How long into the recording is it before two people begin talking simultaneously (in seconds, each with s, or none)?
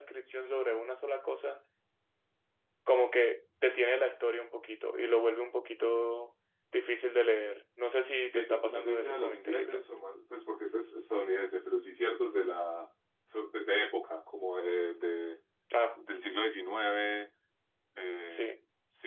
8.3 s